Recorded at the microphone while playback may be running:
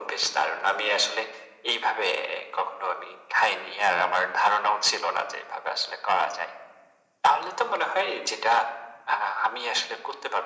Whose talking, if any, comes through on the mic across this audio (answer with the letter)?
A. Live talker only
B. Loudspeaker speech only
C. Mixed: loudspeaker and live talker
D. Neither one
B